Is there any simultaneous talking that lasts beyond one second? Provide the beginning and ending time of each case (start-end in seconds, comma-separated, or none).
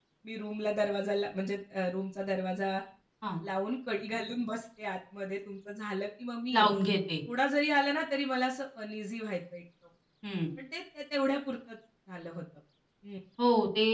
none